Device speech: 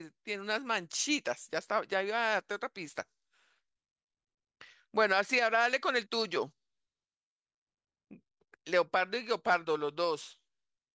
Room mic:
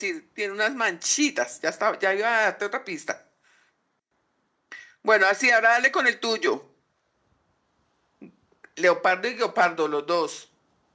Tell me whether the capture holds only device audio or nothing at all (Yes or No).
Yes